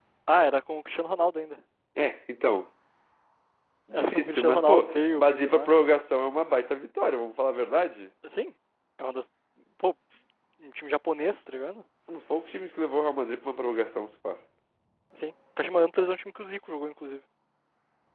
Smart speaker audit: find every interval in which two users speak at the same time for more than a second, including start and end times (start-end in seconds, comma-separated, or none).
3.9-5.7